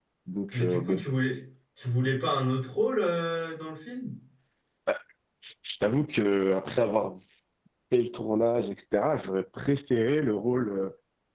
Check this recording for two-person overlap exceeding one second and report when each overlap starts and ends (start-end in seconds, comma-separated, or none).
none